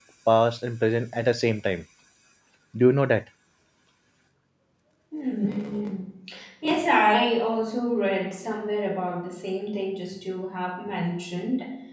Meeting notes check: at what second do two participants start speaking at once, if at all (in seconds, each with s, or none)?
none